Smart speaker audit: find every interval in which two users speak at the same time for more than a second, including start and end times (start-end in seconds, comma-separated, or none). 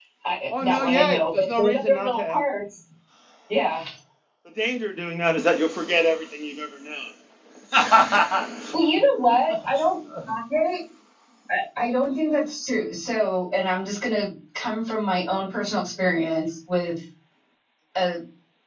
0.6-2.4